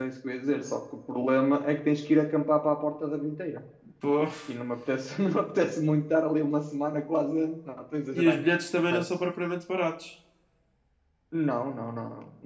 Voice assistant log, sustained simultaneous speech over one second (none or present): none